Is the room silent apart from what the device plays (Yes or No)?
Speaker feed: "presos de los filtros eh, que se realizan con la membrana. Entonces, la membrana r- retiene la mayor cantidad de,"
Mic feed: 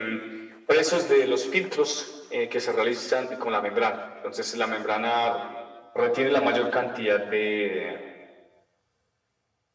Yes